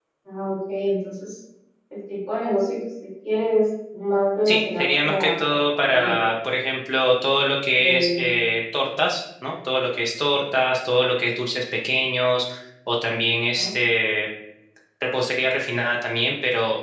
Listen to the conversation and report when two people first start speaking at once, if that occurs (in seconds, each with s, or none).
4.4 s